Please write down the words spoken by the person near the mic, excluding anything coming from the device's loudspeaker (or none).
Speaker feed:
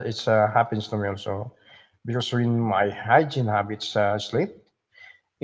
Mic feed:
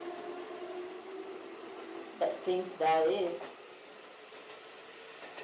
that thinks that is.